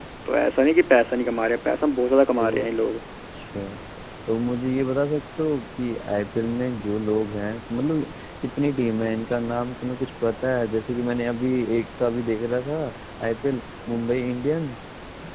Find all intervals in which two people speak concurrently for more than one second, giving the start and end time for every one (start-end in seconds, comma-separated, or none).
none